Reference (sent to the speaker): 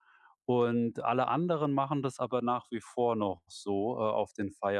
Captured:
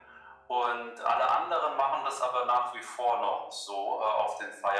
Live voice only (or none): none